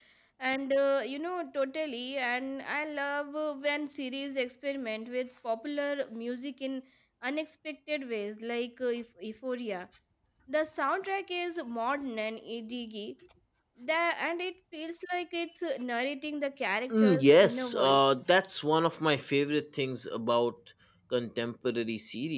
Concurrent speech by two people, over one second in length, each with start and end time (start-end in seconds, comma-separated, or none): 16.9-18.2